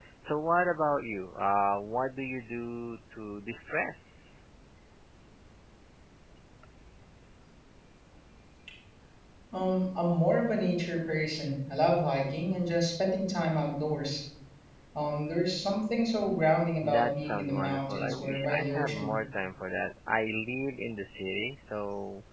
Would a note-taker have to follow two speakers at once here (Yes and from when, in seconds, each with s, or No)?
Yes, from 16.8 s